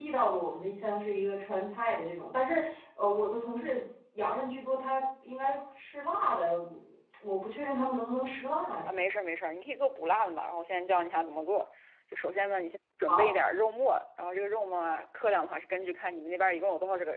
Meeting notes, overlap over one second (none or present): none